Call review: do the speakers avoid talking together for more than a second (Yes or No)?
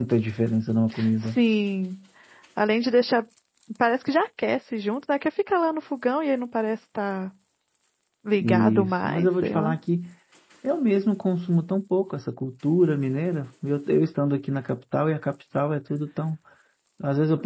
No